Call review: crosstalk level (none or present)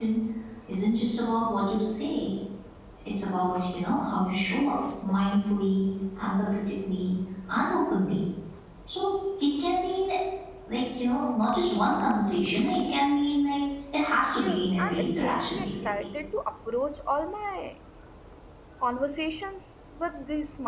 present